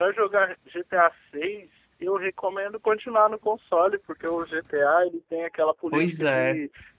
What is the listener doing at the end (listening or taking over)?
listening